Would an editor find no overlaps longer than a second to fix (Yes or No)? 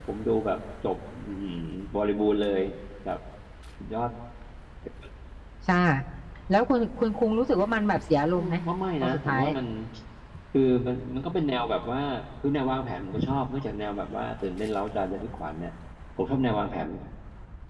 Yes